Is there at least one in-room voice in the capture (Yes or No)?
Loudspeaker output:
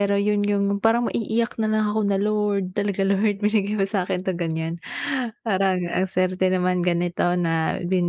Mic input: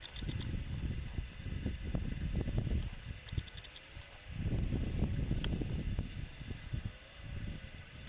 No